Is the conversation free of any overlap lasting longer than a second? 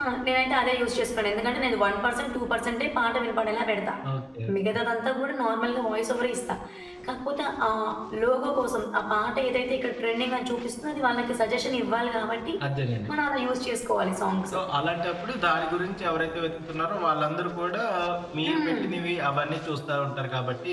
Yes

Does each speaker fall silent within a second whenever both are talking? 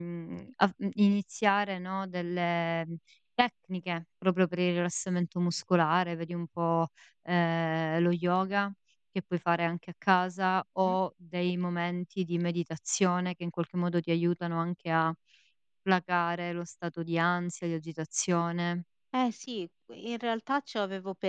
Yes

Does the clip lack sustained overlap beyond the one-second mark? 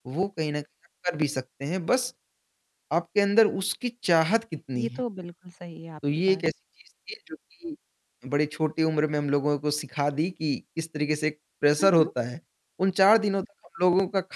Yes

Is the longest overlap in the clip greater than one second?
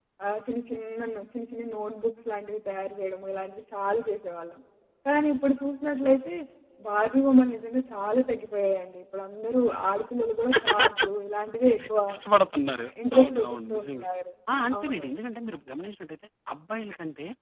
Yes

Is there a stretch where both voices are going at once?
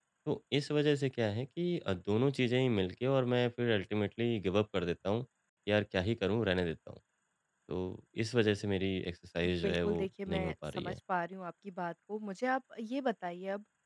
Yes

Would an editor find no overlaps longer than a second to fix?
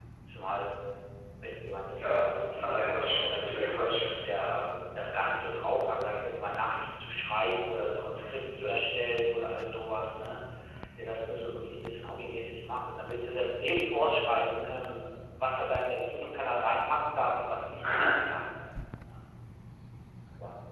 No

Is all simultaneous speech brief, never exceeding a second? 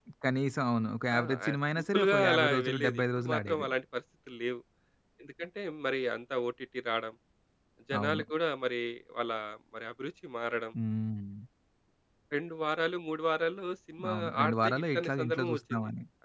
No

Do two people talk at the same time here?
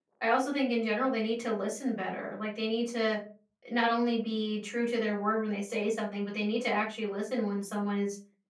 No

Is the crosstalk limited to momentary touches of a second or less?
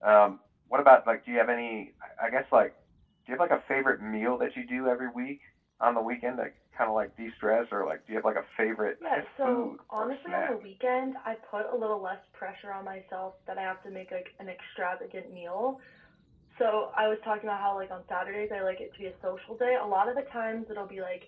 No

